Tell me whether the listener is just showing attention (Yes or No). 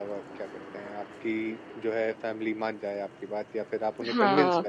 No